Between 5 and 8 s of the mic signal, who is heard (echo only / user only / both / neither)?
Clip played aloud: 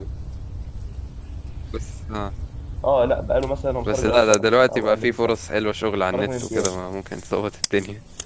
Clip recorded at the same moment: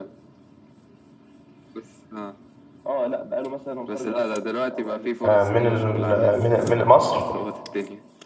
both